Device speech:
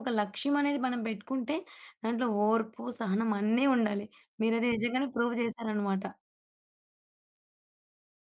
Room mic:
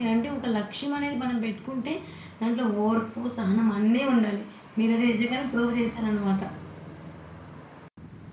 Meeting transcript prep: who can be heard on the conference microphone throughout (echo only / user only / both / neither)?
echo only